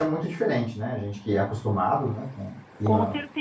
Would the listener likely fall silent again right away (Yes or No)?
No